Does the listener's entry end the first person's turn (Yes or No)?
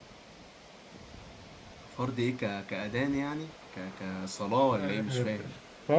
Yes